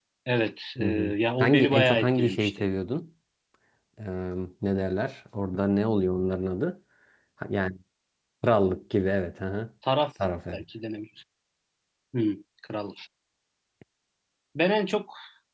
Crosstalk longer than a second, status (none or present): present